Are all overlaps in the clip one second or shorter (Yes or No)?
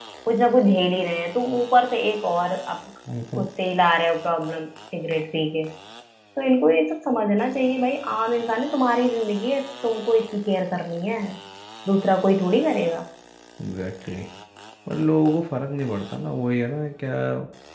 Yes